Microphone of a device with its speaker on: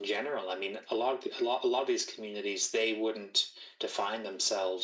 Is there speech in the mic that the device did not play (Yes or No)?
No